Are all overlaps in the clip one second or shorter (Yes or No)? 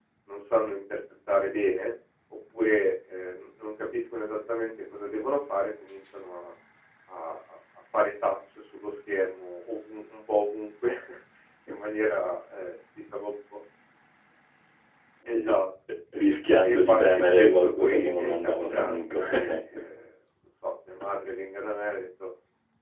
No